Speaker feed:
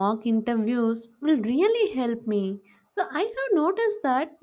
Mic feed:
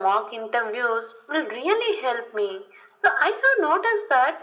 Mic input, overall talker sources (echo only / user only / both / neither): echo only